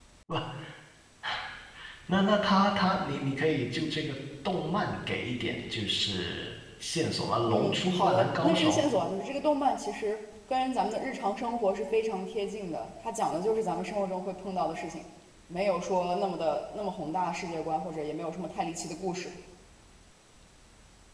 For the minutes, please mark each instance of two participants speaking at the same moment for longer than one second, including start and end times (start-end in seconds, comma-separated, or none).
7.5-8.7